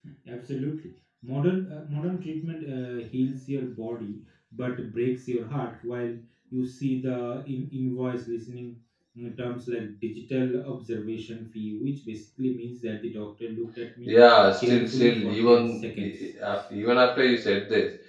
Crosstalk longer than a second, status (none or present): present